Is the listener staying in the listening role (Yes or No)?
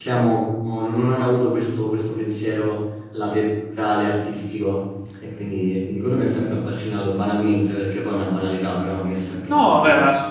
No